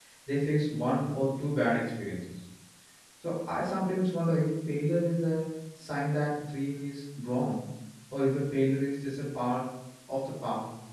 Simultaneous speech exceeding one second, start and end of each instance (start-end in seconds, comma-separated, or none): none